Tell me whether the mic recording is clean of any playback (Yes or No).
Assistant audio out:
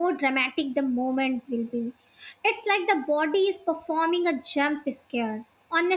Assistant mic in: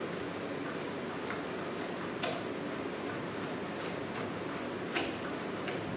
Yes